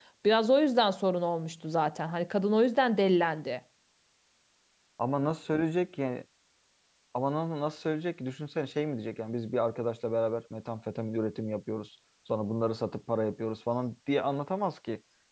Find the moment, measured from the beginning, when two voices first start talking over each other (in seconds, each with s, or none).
none